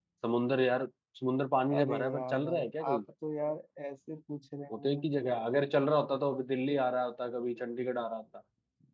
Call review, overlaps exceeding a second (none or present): present